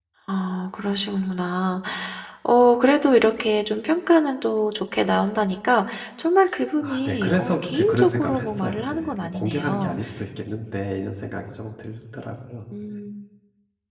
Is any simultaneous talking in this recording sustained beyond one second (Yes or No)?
Yes